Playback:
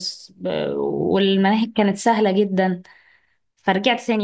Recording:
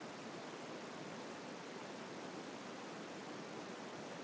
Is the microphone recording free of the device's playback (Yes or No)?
Yes